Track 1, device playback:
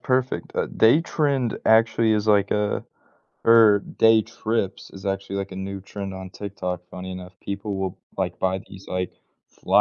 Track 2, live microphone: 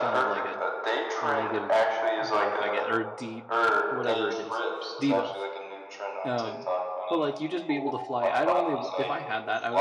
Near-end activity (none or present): present